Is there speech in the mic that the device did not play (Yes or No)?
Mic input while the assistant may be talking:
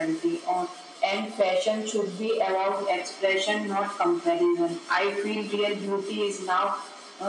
No